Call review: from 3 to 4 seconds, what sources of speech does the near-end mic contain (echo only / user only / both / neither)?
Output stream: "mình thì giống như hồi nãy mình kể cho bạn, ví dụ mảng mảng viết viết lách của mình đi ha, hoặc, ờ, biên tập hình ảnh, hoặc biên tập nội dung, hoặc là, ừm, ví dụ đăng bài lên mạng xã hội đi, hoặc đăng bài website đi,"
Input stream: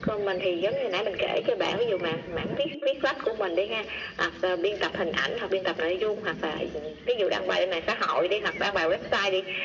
echo only